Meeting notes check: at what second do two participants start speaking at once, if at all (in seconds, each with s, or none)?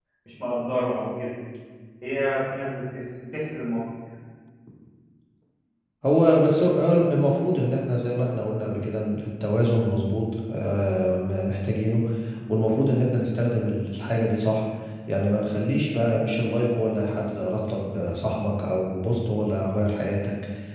none